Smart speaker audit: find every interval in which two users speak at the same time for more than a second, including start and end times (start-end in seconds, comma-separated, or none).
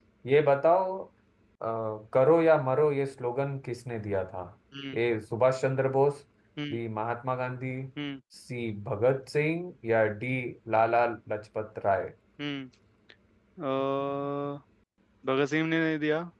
none